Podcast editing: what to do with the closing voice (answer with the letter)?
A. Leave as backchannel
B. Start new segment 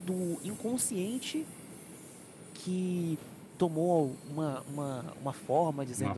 B